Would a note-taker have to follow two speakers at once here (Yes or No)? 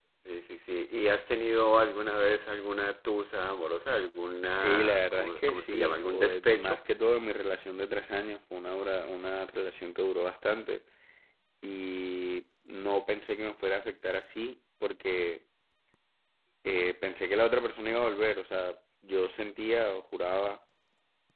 Yes